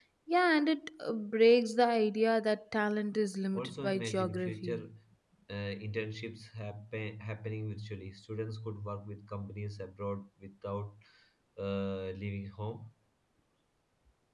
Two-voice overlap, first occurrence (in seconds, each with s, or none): 3.5 s